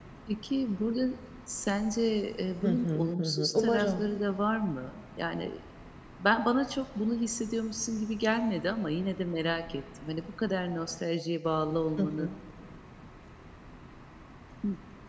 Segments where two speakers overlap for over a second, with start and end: 2.6-4.0

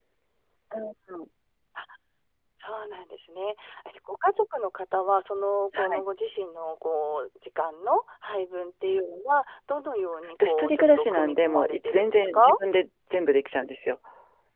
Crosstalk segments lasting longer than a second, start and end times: 10.4-12.6

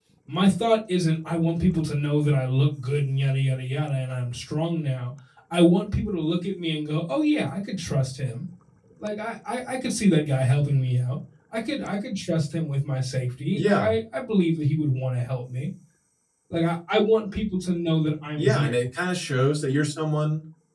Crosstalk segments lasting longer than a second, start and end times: none

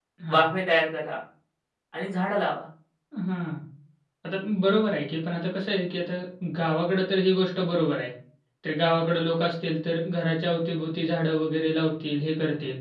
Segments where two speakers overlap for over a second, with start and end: none

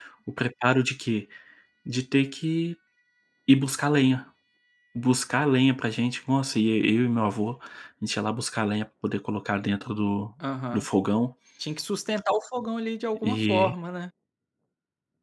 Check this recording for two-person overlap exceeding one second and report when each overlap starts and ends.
none

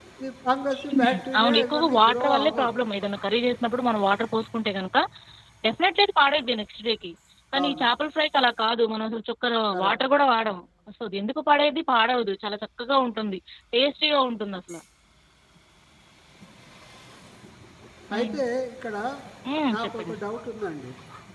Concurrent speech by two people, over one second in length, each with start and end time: 0.9-2.8

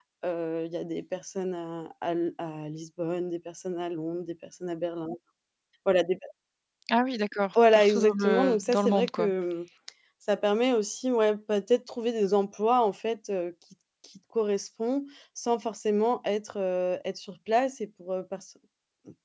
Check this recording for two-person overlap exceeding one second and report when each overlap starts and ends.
7.7-9.3

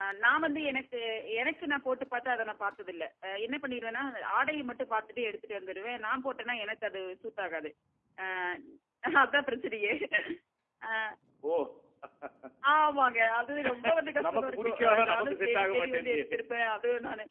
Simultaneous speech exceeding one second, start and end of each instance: 14.2-16.4

